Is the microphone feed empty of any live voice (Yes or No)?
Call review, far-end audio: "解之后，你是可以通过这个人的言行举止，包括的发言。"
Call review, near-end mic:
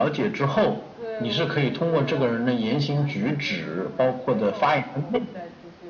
No